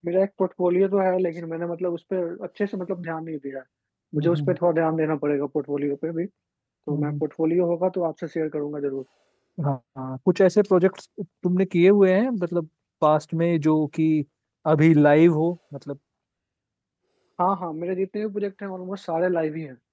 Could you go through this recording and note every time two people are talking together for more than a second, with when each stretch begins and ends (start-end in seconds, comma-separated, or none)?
none